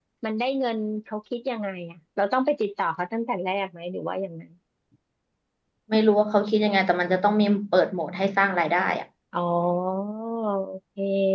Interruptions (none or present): none